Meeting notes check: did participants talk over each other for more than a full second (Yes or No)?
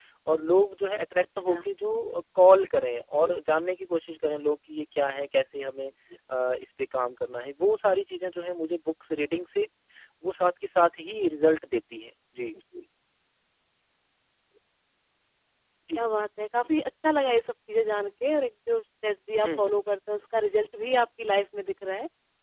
No